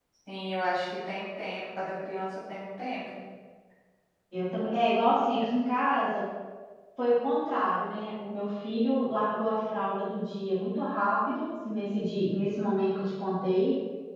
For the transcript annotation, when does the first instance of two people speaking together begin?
none

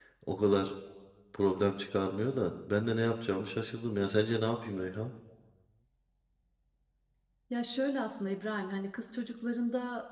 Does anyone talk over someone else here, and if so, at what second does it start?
none

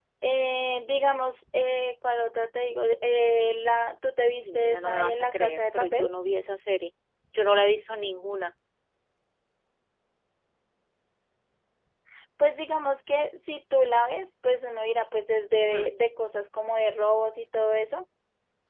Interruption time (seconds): 4.4 s

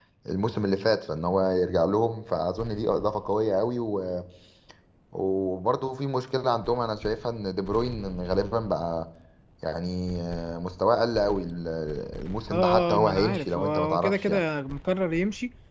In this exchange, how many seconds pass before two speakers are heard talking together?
12.5 s

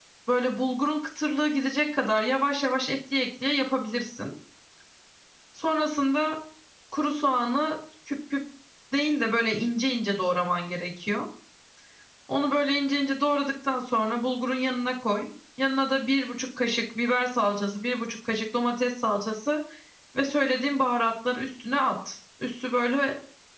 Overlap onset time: none

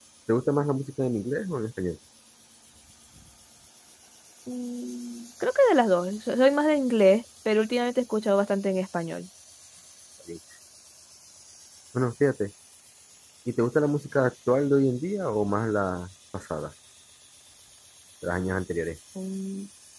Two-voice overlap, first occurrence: none

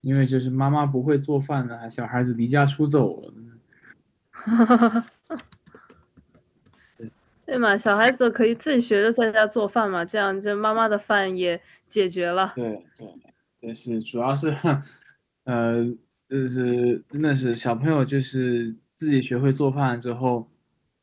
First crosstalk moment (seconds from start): none

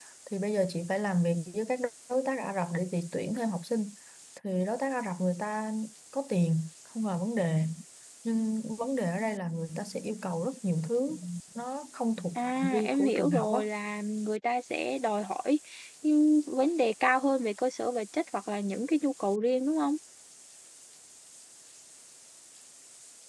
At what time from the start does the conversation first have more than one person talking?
12.3 s

